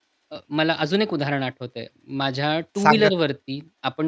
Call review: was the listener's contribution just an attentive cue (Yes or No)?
Yes